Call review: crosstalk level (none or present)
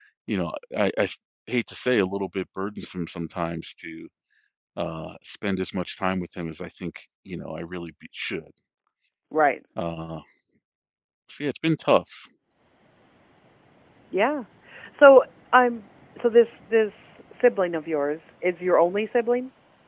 none